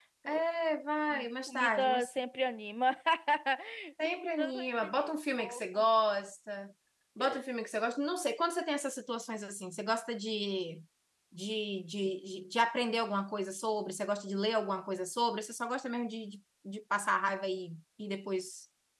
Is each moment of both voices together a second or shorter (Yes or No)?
No